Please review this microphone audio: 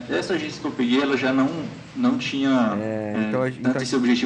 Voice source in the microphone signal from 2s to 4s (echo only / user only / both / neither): both